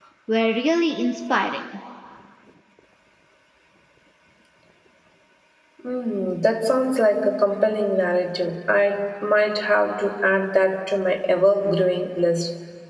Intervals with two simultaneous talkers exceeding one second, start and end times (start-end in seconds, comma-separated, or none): none